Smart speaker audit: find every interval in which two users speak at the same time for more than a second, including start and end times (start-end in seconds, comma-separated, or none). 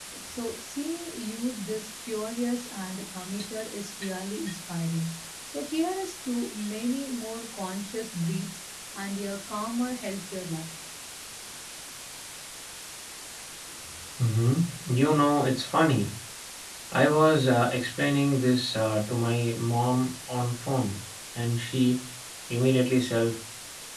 none